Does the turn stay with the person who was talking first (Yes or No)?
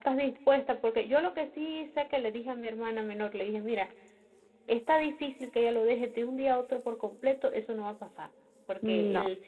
Yes